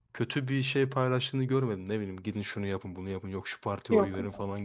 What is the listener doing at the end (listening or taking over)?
listening